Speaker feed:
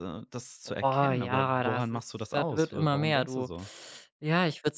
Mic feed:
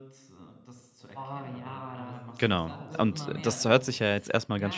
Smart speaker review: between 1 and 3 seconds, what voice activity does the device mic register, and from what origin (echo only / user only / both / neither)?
both